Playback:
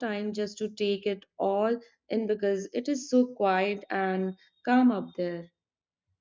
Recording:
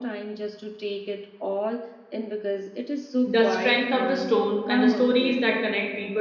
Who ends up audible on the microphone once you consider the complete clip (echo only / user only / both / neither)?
both